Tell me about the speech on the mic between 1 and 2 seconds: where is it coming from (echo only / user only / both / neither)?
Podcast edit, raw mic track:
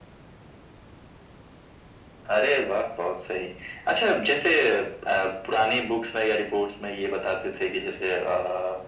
neither